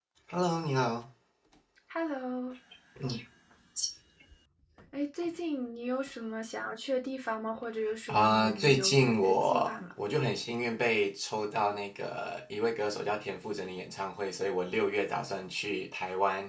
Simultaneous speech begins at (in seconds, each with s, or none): 8.1 s